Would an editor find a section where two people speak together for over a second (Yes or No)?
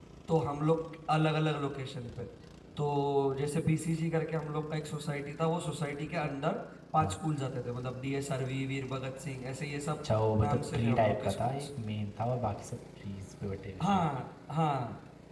Yes